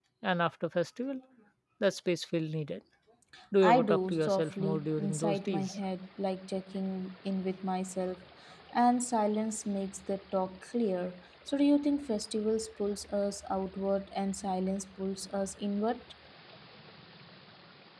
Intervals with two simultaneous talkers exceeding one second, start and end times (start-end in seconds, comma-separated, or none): 3.6-5.8